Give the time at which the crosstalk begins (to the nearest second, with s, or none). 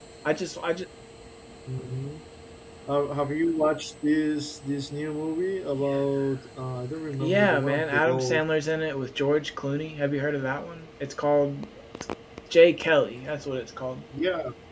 7 s